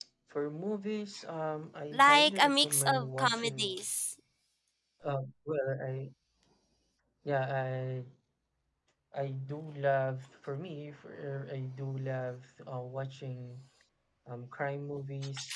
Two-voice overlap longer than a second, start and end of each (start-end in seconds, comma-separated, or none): 1.9-3.8